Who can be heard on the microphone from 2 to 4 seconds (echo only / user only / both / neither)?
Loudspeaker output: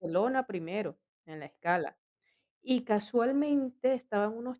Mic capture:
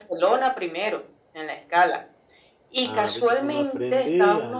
both